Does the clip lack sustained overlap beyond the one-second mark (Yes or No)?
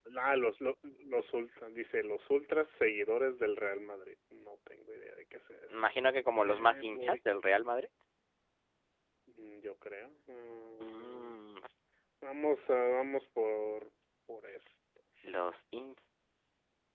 No